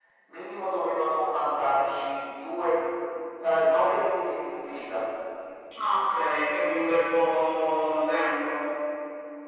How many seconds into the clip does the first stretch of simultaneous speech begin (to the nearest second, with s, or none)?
none